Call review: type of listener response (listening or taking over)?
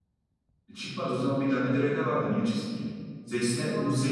listening